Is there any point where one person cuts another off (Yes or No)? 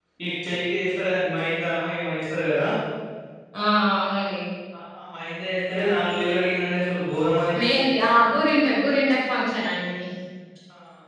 No